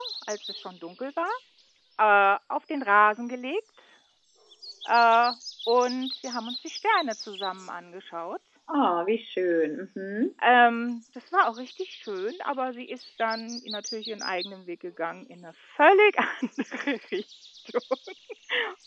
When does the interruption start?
none

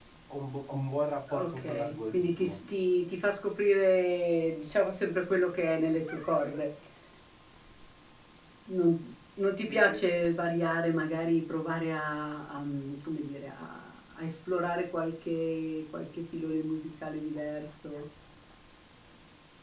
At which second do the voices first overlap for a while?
1.3 s

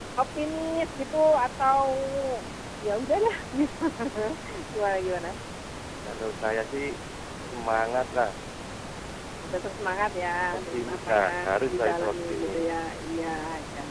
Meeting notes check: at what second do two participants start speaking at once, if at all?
10.5 s

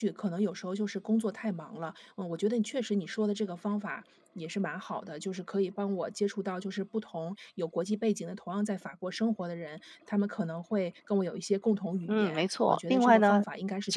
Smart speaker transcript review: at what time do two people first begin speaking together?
12.0 s

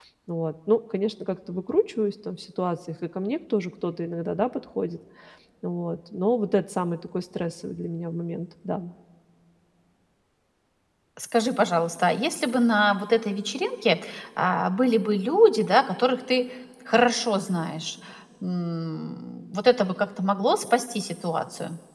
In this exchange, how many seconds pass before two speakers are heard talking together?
none

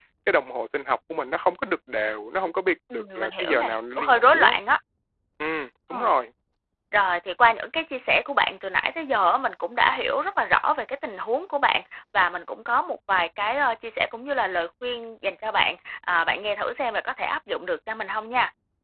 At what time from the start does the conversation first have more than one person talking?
2.9 s

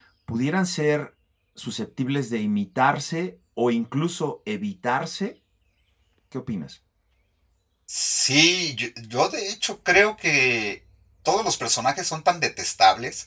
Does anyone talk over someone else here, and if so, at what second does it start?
none

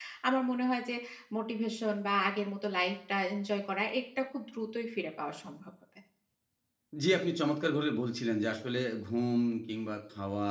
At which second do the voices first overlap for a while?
none

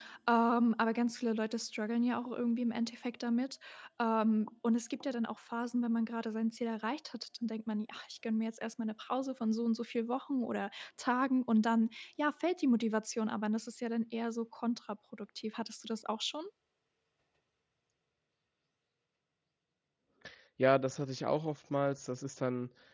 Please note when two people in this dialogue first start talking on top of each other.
none

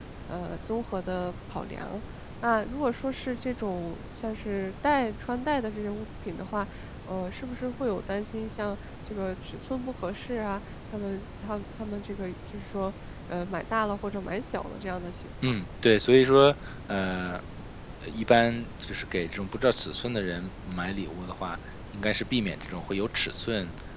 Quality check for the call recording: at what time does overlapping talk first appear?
none

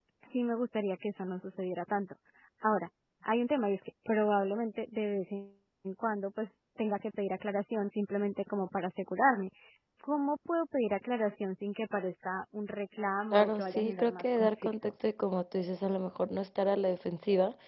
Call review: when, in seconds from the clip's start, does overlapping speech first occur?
13.3 s

